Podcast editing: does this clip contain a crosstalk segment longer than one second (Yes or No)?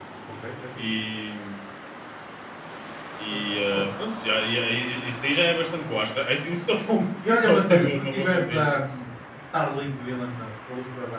Yes